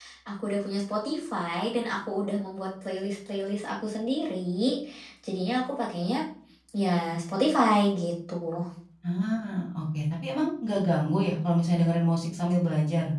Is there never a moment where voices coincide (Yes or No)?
Yes